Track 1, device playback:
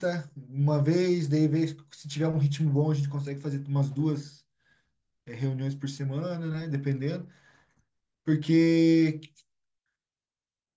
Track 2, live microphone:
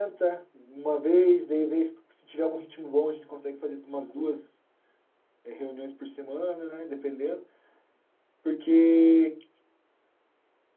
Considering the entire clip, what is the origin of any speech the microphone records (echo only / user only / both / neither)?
echo only